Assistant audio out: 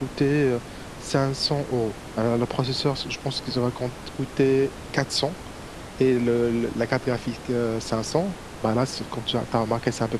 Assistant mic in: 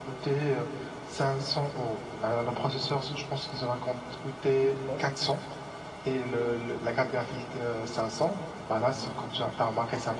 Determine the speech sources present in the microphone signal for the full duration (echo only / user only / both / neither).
both